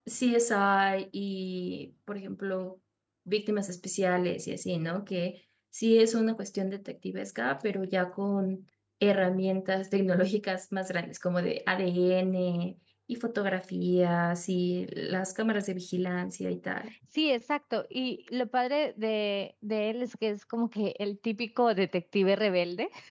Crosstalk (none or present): none